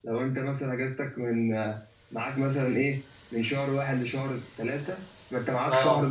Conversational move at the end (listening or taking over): listening